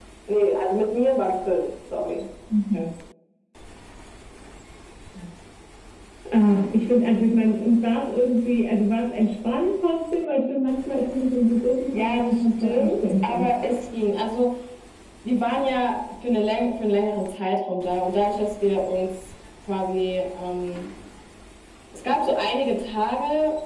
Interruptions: present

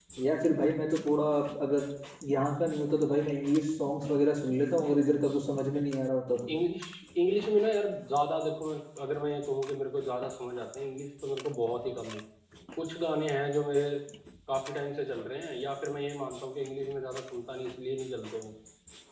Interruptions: none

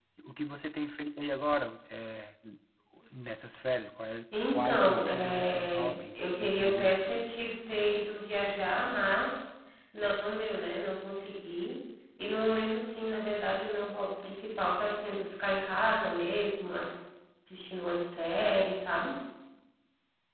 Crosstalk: present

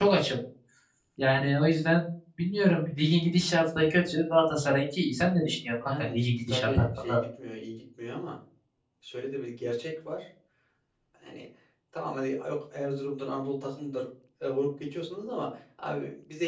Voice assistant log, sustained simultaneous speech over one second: present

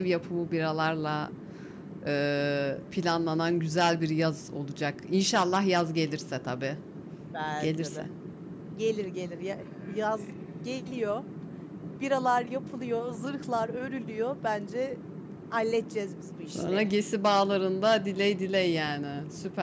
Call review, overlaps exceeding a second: none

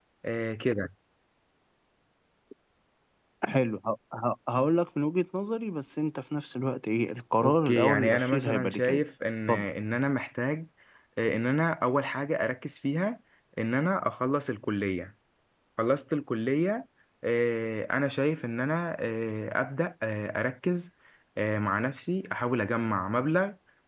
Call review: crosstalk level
present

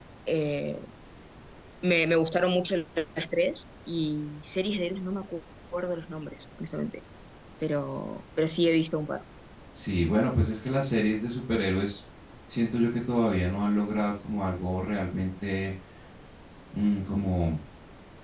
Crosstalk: none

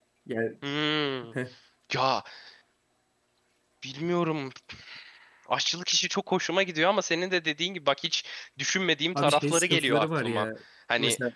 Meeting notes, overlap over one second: present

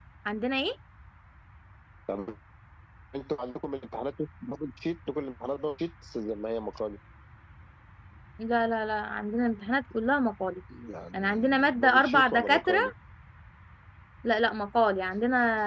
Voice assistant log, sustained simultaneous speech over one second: present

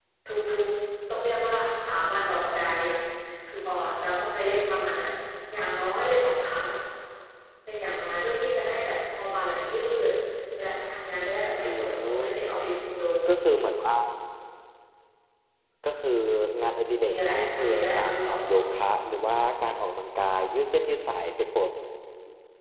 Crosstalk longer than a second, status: present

